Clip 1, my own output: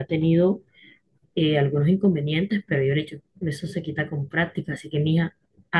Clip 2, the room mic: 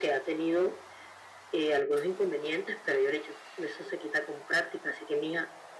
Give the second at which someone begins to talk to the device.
none

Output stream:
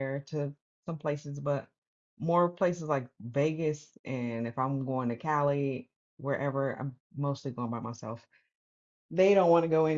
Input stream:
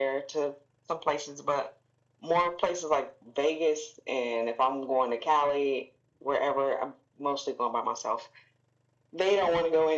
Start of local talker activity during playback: none

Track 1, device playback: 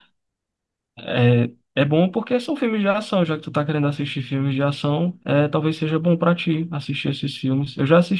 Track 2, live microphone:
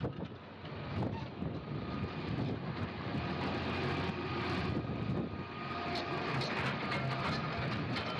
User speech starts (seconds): none

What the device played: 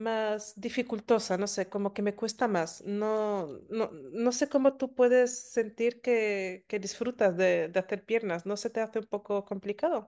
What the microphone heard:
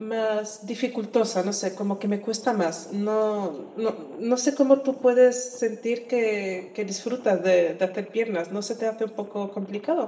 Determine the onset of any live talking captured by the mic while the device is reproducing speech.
none

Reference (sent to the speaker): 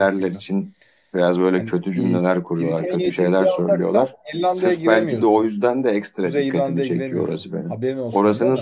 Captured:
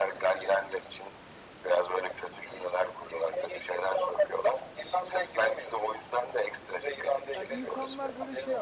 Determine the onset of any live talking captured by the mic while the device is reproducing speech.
7 s

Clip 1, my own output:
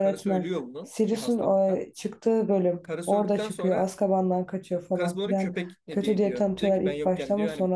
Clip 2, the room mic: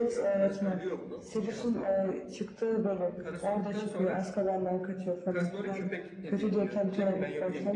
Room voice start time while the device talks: none

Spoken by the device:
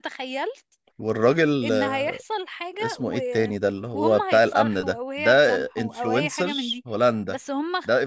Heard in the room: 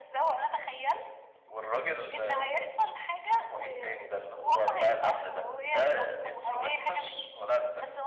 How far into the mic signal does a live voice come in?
none

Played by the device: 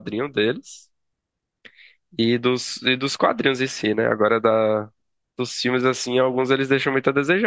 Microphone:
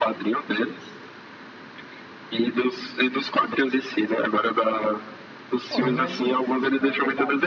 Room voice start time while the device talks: 6 s

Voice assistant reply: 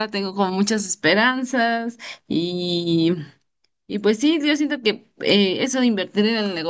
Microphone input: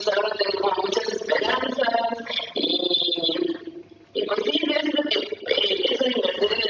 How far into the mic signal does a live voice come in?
none

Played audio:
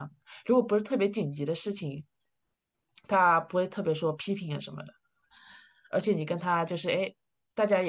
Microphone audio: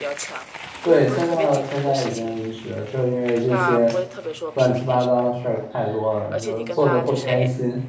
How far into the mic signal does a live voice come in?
1 s

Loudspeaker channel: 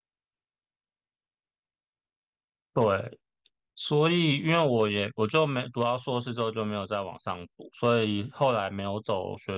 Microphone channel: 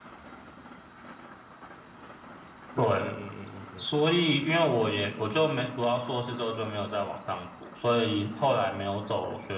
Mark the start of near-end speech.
3 s

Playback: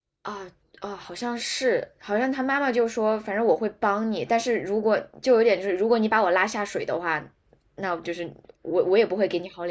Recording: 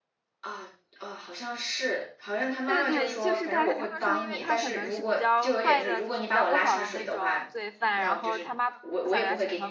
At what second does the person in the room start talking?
3 s

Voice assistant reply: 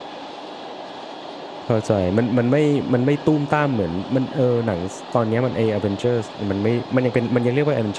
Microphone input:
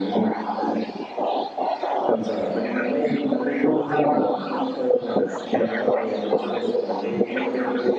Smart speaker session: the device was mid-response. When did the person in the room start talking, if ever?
none

